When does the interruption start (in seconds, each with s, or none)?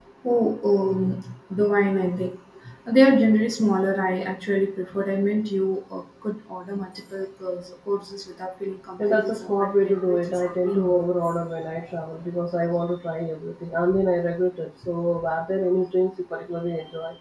9.0 s